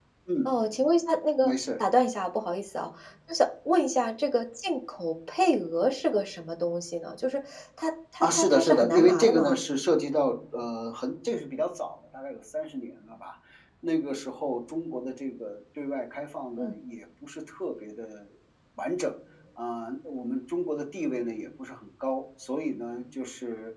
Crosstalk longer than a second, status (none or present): present